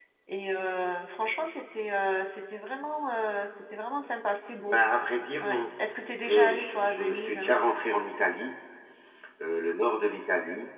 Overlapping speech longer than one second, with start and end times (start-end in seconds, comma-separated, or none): 6.2-7.5